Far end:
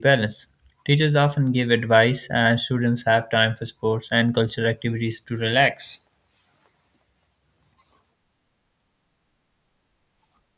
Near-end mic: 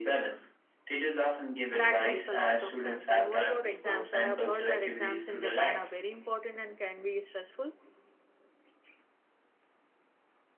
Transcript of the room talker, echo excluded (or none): That makes a lot of sense. And what about exams? I have heard that exams in Japan are very important and can be stressful.